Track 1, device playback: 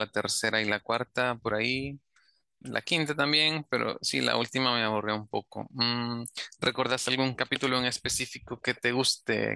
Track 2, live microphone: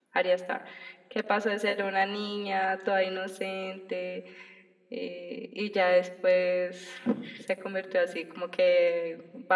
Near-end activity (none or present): present